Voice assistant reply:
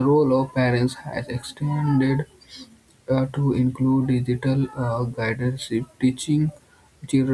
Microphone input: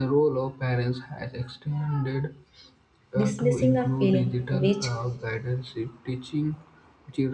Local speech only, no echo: dismissing a feeling, which

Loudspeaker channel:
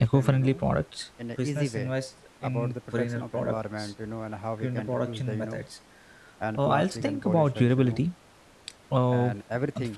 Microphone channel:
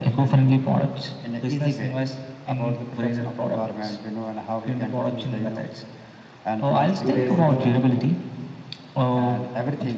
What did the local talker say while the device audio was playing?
two days you know

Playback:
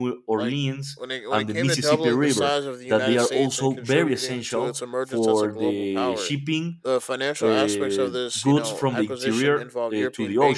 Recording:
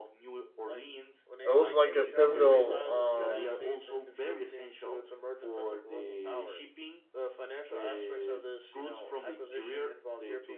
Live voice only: it was like a pivotal, um,

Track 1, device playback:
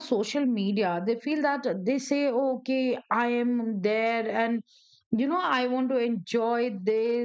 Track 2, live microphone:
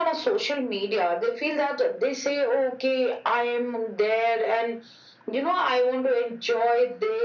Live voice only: none

